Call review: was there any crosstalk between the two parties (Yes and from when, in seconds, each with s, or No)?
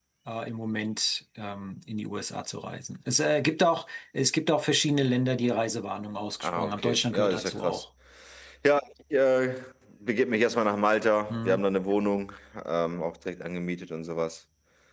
Yes, from 6.4 s